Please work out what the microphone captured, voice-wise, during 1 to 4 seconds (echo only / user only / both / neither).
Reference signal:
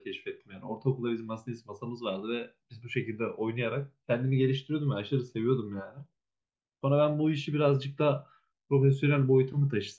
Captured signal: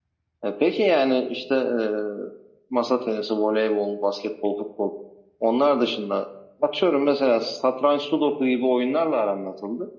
user only